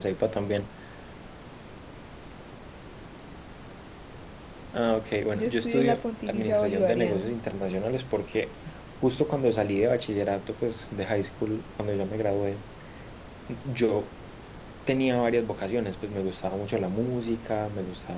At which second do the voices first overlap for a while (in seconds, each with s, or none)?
5.3 s